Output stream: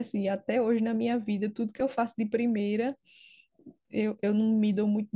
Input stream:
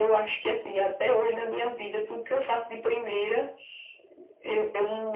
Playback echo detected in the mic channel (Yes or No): Yes